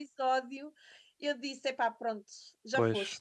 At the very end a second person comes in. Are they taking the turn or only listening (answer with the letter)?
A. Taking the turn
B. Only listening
A